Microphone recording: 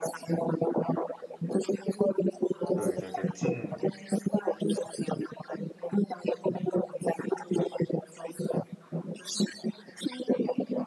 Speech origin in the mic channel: both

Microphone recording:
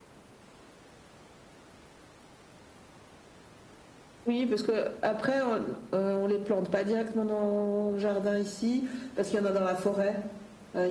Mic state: echo only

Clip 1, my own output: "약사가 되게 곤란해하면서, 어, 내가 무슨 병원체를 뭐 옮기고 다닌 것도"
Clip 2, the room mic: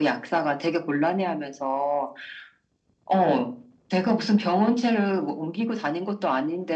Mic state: echo only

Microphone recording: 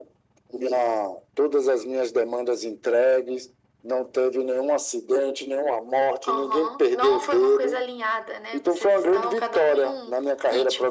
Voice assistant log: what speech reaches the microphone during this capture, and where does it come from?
echo only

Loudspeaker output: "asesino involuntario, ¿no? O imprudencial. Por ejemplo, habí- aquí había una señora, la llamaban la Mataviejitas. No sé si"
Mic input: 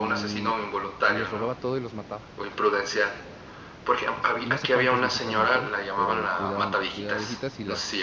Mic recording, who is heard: both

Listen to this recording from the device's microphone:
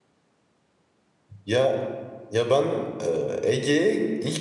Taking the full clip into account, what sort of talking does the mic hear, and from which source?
user only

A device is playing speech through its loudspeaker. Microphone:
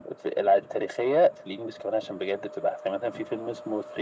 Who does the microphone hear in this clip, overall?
echo only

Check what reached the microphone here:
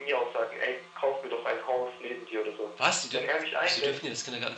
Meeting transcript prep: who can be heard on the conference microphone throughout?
both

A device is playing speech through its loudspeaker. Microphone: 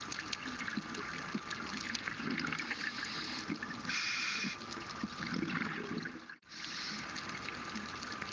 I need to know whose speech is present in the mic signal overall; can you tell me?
neither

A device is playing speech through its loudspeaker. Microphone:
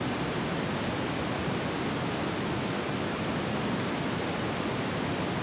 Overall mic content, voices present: neither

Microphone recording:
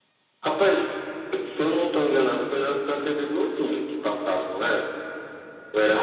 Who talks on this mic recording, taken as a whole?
echo only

